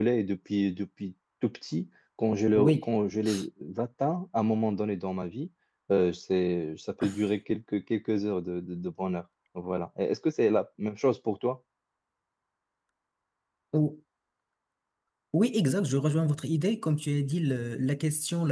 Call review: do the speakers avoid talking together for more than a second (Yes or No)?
Yes